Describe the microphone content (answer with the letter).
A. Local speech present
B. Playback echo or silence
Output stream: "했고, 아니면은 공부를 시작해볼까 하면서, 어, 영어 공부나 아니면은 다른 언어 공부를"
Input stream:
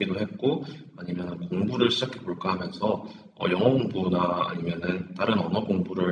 B